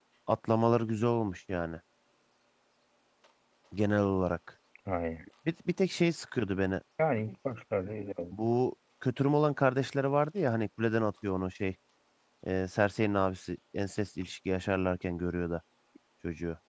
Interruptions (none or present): none